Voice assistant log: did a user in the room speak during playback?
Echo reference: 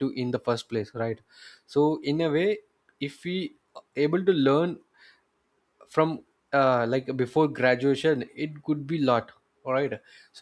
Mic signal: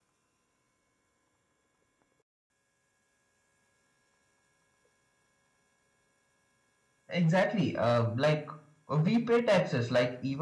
Yes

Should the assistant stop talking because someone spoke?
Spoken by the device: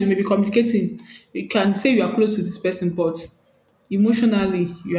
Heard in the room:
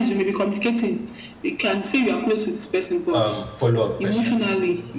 Yes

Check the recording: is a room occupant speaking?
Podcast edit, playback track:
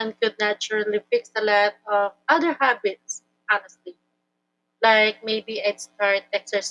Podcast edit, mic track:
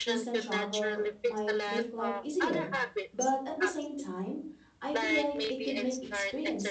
Yes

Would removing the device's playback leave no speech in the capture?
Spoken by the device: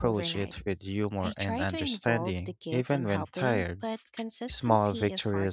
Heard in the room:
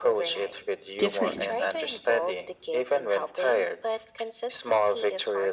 No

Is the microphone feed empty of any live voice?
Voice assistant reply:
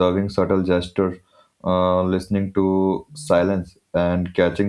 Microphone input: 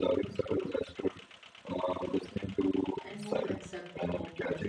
No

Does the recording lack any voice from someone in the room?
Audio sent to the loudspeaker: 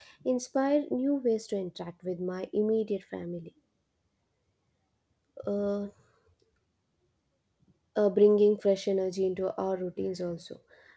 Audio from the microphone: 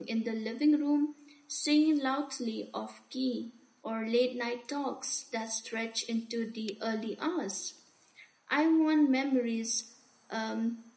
No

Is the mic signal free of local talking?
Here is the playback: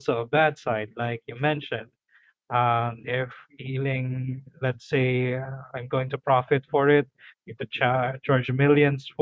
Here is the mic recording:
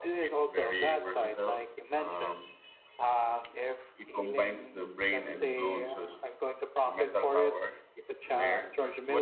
No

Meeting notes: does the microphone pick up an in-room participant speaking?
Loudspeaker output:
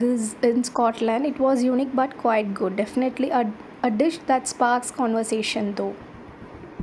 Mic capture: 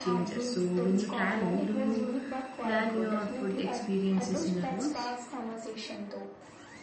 Yes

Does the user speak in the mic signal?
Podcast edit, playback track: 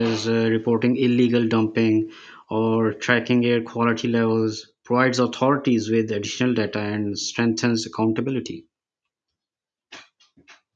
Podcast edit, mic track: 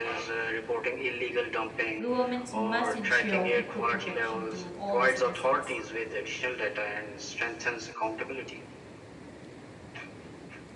Yes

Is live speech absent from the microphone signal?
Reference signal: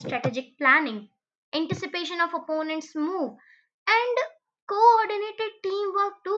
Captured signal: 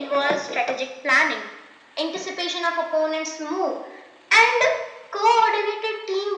Yes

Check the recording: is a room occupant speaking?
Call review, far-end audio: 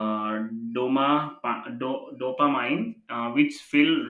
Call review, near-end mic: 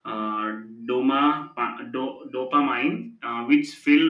No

